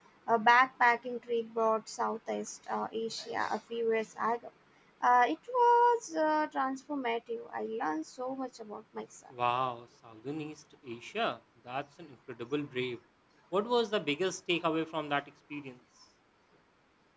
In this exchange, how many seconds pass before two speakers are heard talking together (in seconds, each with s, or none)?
none